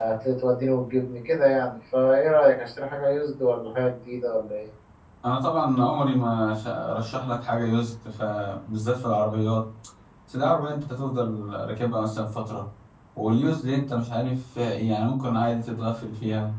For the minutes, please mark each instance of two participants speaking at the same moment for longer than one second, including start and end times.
none

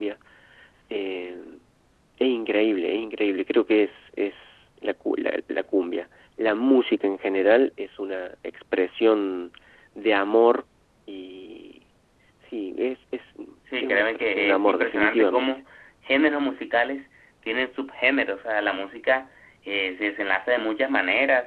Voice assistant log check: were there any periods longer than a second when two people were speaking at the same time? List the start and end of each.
13.8-15.5

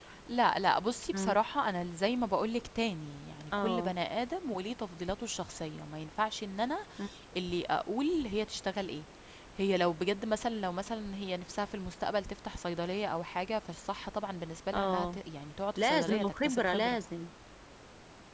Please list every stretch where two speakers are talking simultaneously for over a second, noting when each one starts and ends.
15.8-17.0

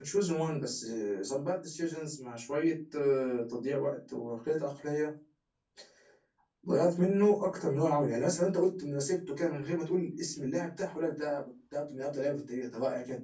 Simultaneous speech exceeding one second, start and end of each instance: none

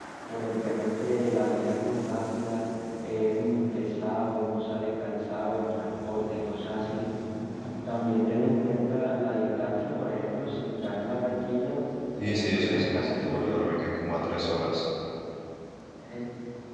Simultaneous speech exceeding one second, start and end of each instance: 12.2-13.7

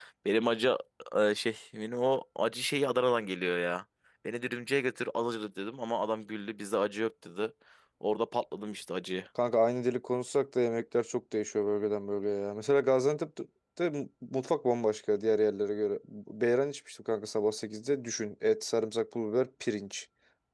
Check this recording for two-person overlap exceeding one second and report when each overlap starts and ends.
none

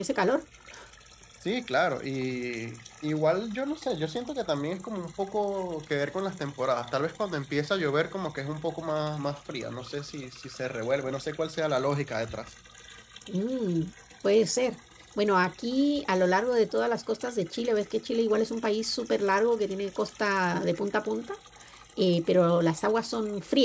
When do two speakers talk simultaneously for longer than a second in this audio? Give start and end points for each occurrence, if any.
none

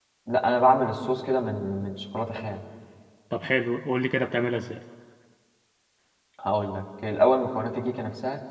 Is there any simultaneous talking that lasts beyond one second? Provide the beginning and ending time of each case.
none

